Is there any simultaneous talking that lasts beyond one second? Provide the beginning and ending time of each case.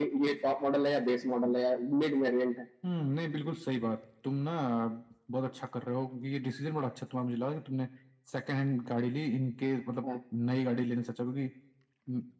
none

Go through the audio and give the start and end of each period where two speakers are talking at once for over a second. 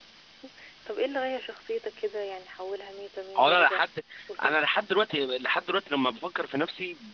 none

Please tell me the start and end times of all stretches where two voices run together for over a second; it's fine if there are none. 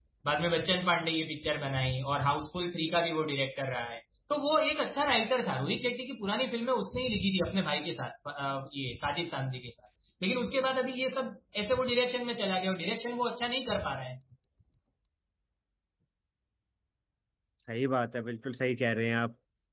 none

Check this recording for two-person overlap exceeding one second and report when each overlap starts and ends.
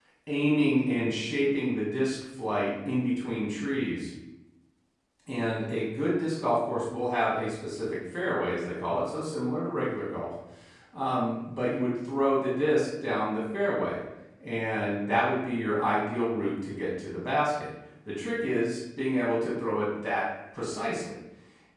none

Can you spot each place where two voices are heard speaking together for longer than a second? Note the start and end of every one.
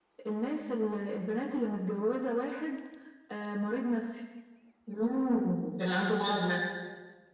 none

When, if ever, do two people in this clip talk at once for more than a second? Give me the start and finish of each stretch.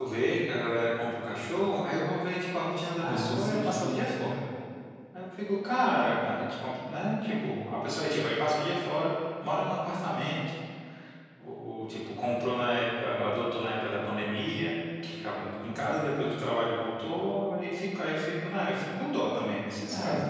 3.0-4.3

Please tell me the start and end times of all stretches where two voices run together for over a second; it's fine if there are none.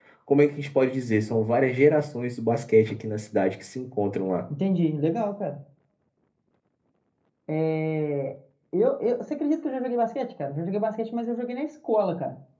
none

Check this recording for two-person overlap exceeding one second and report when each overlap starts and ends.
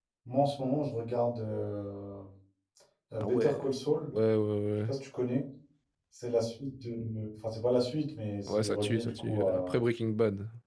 8.5-9.8

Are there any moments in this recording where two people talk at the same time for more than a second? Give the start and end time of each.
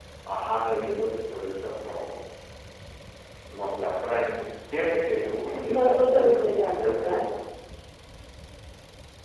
5.7-7.2

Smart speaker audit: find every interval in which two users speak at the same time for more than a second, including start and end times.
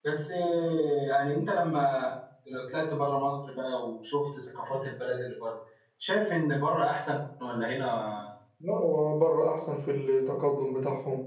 none

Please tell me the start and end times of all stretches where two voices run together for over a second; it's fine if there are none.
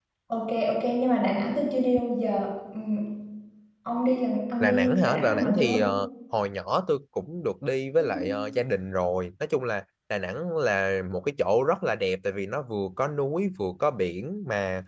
4.6-5.8

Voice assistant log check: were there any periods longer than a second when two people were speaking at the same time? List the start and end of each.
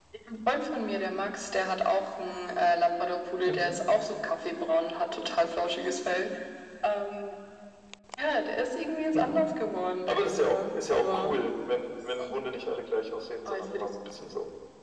10.1-11.3

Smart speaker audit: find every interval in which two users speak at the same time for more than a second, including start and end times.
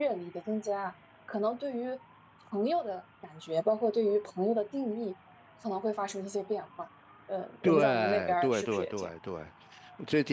7.6-9.1

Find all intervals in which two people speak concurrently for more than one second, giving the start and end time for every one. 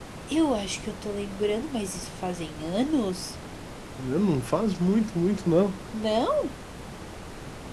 none

